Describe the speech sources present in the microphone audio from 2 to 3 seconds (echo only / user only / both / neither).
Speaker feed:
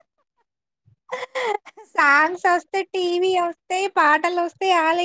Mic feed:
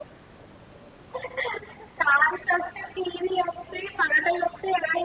echo only